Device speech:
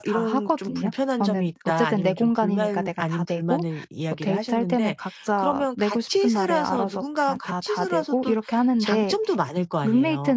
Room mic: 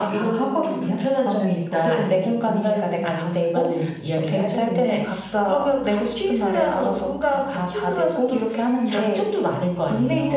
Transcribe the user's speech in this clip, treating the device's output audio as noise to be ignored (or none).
none